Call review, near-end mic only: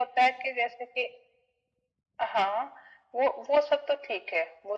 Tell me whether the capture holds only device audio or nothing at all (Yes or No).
Yes